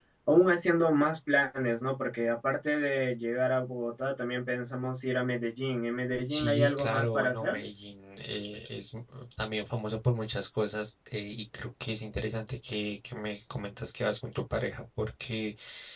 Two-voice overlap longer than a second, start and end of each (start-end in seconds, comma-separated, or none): 6.3-7.6